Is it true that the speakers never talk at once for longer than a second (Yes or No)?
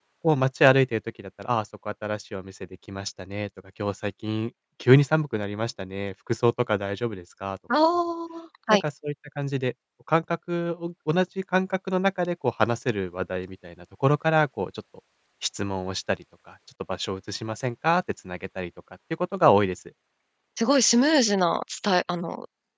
Yes